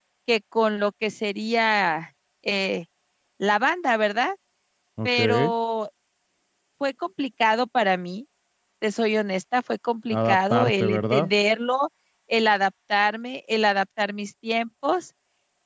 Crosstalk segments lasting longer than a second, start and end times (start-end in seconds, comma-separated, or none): 10.1-11.3